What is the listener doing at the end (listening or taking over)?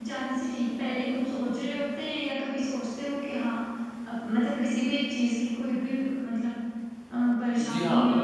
taking over